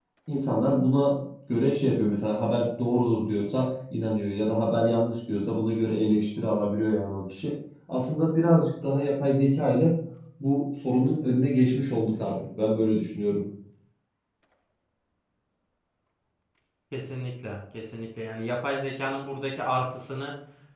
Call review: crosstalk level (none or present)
none